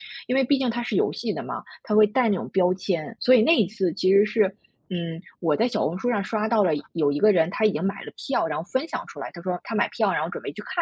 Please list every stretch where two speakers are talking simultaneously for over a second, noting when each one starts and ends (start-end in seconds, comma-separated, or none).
none